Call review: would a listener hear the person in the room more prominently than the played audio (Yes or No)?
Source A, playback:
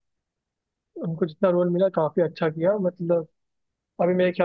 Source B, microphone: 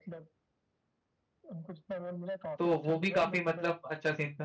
Yes